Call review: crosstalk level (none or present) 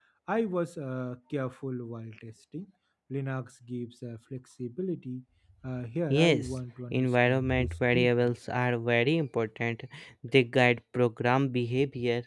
present